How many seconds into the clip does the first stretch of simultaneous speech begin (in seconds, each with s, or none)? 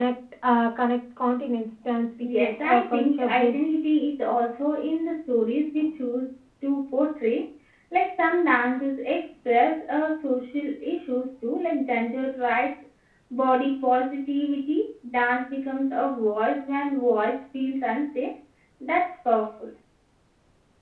2.2 s